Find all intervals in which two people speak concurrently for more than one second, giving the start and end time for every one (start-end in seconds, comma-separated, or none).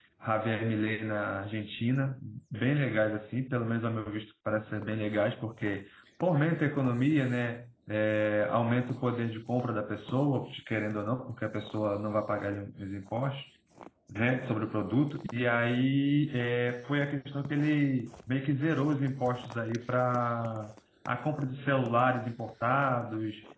none